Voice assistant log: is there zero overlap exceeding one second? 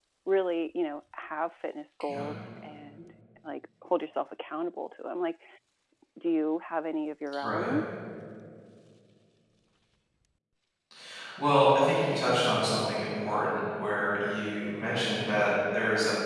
Yes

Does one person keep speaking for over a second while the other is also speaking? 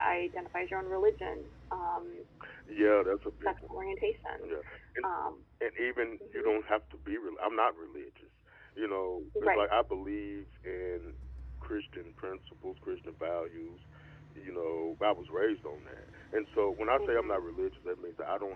No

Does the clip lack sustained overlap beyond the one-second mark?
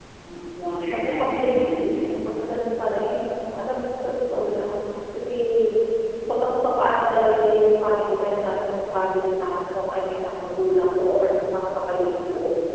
No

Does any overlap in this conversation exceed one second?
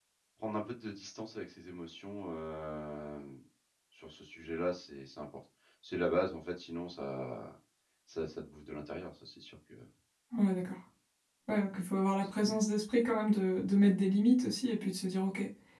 No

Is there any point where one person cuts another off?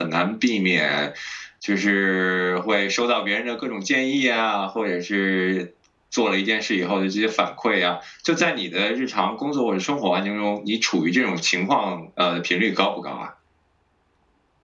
No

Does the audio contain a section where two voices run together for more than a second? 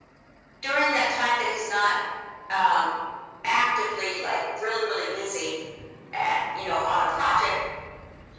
No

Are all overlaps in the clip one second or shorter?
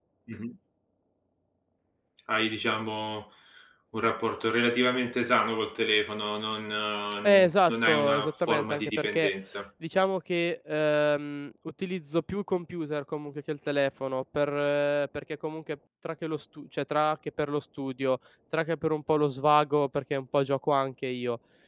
No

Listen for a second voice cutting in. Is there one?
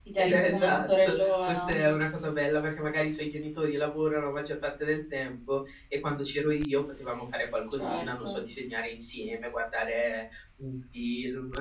Yes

